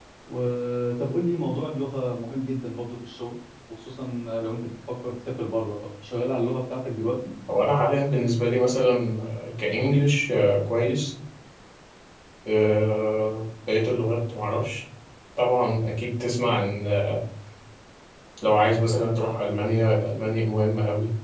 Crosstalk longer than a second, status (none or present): none